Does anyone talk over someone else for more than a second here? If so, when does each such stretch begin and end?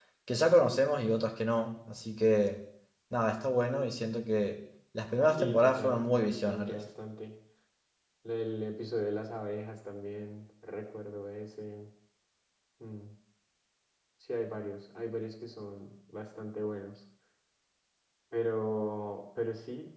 5.4-6.8

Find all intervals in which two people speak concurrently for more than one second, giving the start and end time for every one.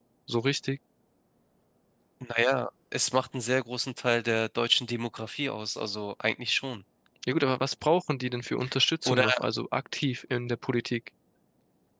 none

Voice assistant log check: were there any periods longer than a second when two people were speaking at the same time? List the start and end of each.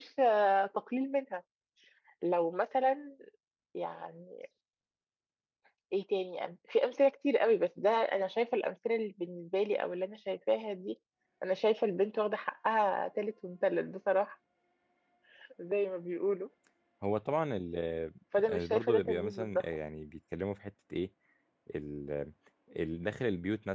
18.4-19.6

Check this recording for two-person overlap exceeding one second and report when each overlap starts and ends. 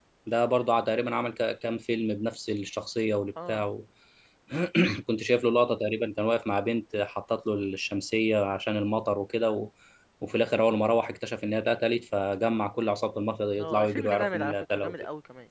13.6-14.9

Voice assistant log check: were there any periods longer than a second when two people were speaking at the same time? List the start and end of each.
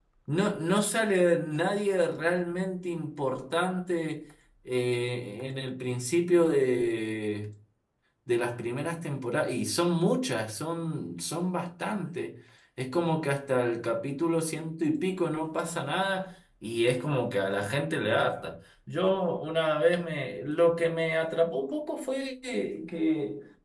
none

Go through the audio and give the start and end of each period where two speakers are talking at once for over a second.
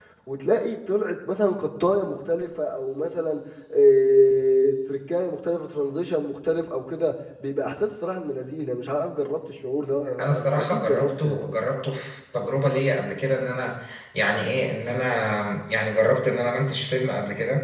10.2-11.5

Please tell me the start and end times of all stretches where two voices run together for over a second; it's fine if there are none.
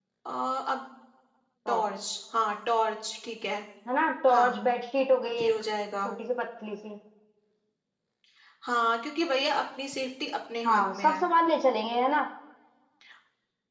none

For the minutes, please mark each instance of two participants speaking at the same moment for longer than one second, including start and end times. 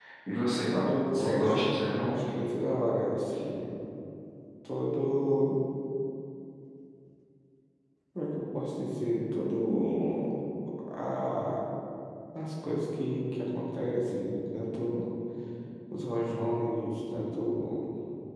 0.7-2.1

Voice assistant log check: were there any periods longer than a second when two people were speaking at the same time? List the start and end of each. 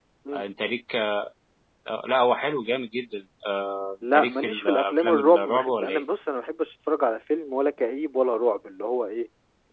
4.1-6.0

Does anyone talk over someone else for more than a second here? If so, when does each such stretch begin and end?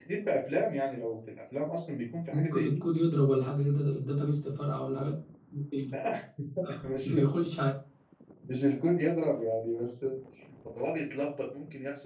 none

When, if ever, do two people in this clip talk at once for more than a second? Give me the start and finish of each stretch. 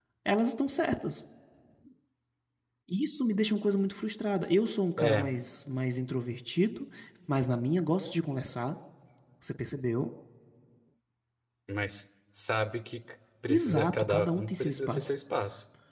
13.5-15.1

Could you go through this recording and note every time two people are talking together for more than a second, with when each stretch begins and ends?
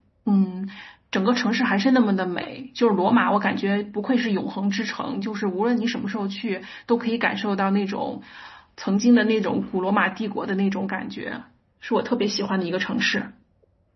none

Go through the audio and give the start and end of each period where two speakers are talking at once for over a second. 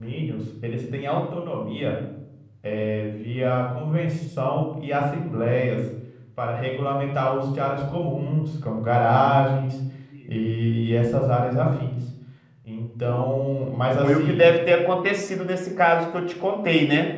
none

